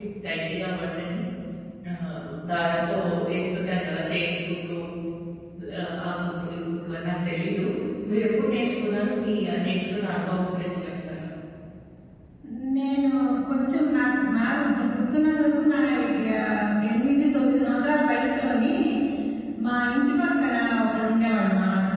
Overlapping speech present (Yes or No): No